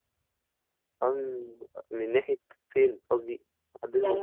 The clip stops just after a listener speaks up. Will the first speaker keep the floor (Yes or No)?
No